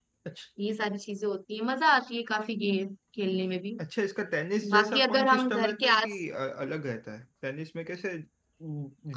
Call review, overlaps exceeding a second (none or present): present